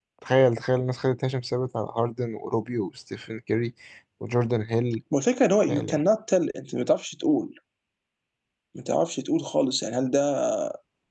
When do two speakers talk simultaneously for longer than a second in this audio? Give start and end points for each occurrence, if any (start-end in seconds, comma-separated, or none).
none